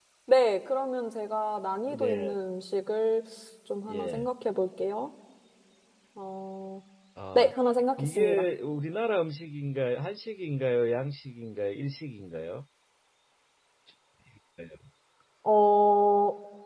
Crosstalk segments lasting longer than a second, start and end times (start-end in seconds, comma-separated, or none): none